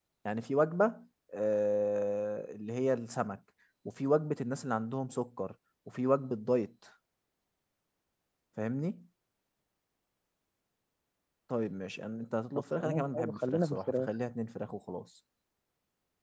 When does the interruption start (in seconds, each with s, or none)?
12.8 s